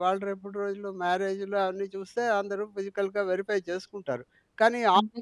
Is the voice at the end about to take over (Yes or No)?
No